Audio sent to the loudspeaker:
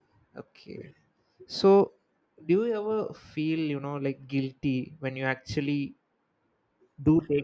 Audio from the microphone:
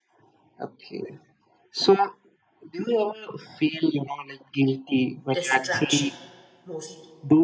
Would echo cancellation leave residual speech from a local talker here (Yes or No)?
Yes